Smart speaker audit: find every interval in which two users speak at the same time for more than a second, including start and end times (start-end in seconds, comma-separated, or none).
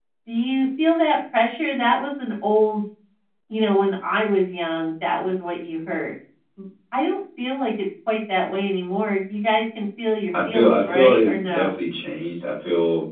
10.4-11.7